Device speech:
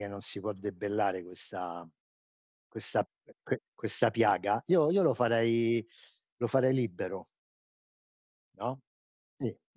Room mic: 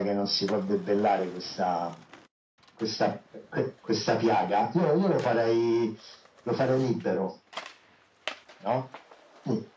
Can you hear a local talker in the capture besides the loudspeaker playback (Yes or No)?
No